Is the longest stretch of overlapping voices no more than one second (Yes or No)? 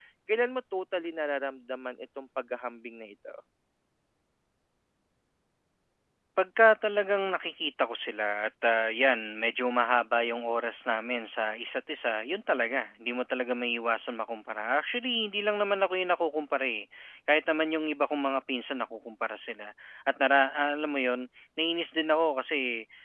Yes